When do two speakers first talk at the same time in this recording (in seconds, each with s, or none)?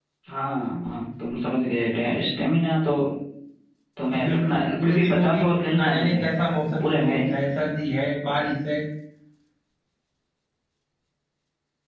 4.2 s